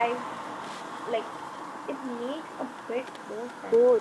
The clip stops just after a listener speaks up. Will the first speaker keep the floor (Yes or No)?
No